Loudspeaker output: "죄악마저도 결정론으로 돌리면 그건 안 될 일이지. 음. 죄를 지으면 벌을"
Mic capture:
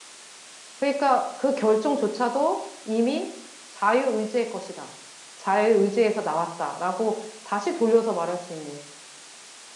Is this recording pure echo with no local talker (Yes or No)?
No